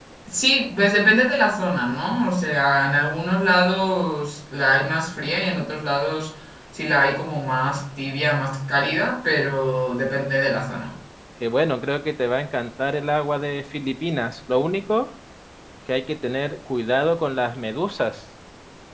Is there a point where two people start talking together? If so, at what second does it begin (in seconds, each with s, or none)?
none